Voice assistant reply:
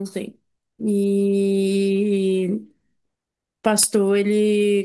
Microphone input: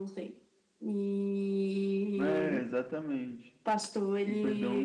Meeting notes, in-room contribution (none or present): present